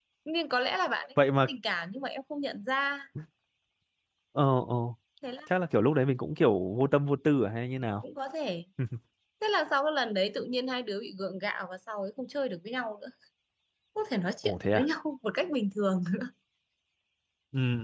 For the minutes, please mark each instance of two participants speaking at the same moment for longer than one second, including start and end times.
none

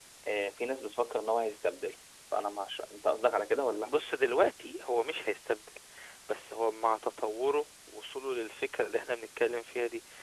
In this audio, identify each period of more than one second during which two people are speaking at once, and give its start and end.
none

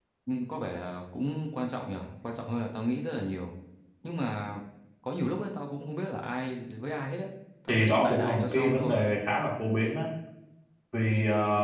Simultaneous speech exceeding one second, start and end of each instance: 7.7-9.0

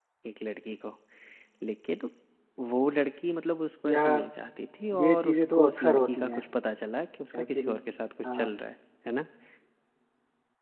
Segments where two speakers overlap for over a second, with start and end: 5.0-6.4

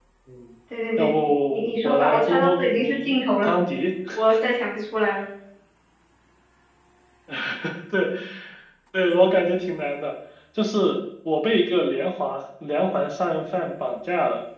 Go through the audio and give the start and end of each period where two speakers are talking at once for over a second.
1.0-3.5

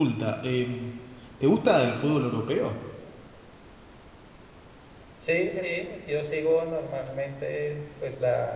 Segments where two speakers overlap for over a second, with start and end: none

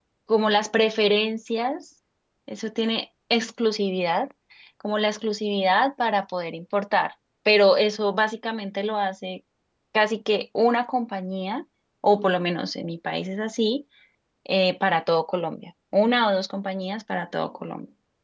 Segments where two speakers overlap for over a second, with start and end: none

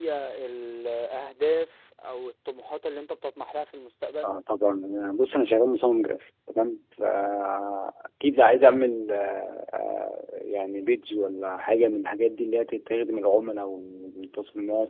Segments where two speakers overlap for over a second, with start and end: none

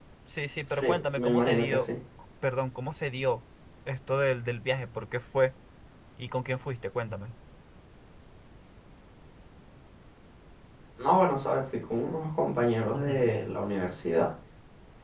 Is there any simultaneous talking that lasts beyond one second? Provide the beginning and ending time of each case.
0.6-1.9

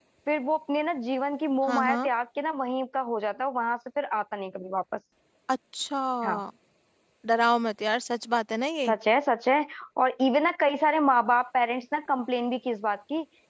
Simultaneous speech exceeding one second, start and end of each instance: none

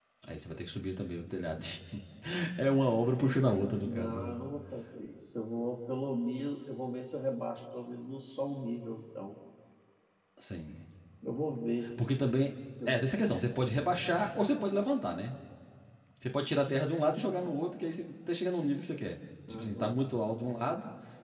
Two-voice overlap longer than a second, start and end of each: none

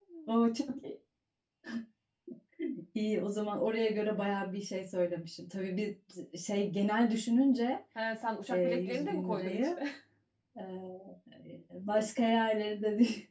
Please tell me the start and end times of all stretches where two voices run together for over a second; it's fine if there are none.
8.5-9.8

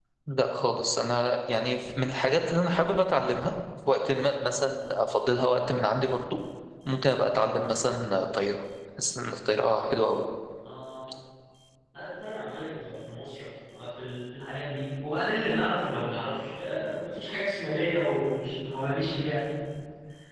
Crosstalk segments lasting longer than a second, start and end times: none

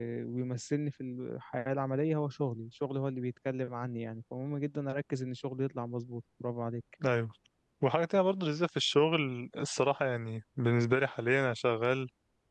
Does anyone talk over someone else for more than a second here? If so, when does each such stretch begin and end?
none

